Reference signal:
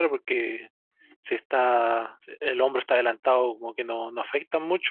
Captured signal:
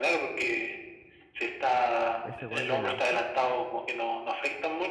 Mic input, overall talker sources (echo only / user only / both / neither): both